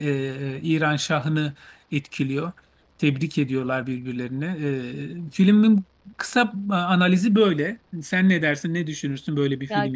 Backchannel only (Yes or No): No